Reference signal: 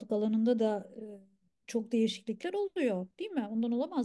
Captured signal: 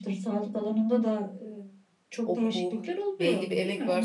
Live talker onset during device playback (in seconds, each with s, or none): 2.2 s